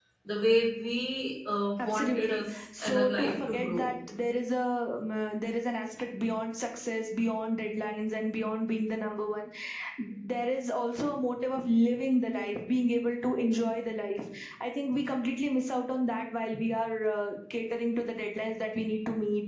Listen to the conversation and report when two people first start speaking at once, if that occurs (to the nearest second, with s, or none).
2 s